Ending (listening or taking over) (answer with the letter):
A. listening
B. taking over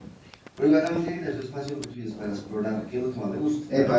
B